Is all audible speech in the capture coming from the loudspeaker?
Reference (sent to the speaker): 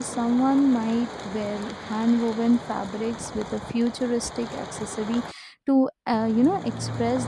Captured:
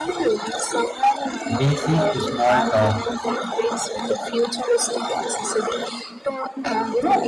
No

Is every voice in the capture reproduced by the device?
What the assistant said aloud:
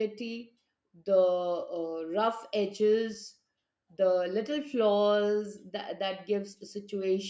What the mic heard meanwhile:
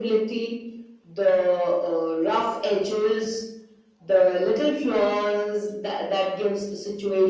Yes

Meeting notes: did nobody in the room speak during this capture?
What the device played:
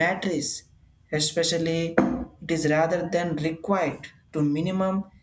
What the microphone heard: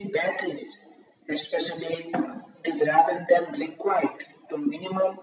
Yes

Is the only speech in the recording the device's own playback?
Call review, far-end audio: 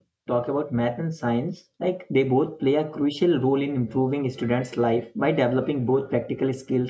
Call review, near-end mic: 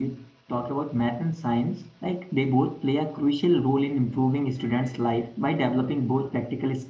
Yes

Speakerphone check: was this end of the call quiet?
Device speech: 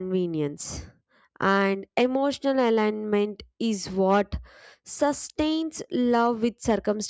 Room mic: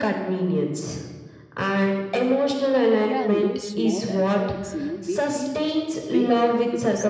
No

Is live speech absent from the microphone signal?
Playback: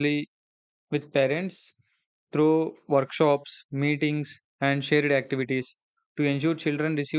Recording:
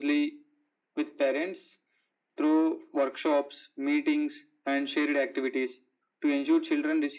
Yes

